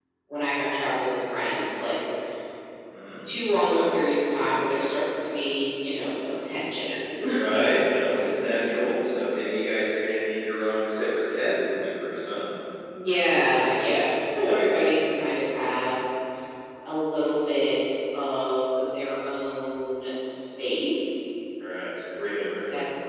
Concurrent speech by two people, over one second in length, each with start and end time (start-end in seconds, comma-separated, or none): none